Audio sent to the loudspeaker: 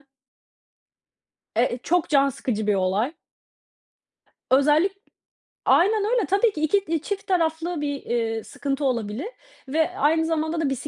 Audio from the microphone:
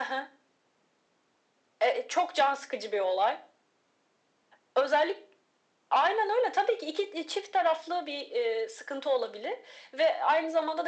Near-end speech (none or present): none